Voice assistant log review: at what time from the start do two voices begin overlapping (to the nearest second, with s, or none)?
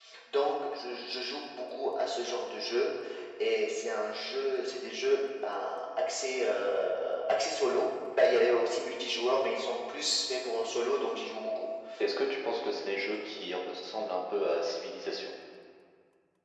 none